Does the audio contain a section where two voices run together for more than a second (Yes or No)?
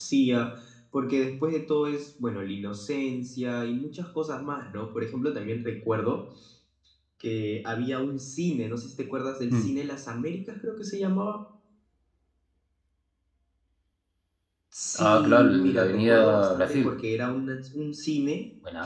Yes